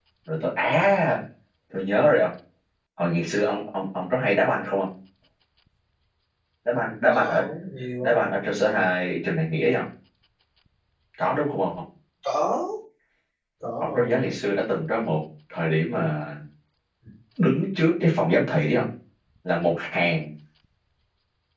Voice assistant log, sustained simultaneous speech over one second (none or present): none